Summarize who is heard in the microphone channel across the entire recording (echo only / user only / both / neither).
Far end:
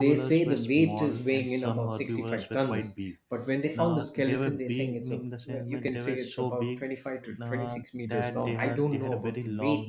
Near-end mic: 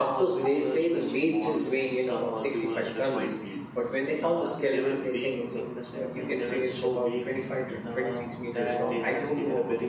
echo only